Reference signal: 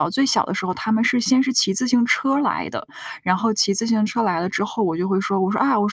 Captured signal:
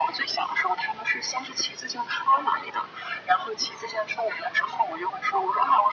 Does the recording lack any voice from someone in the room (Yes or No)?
Yes